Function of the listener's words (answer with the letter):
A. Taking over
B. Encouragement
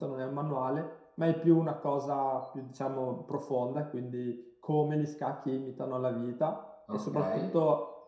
B